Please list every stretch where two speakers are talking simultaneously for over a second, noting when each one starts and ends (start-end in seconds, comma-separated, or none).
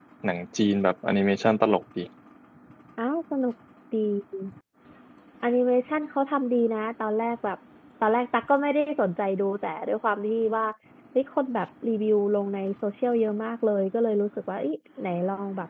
none